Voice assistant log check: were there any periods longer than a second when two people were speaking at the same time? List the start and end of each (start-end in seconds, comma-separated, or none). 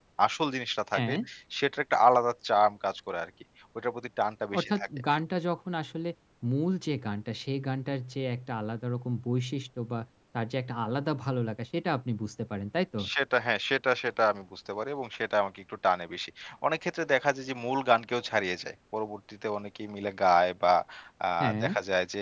none